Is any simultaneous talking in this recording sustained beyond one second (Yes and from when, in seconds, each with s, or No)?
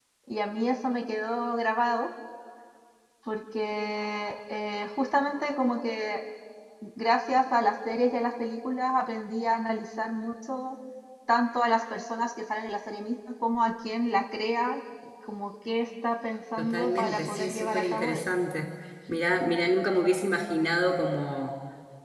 Yes, from 16.6 s